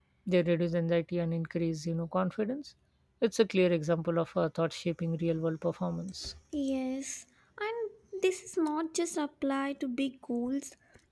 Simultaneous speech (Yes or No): No